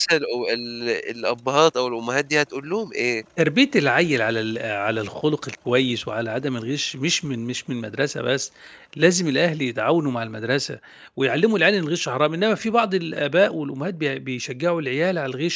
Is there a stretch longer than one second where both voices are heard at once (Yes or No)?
No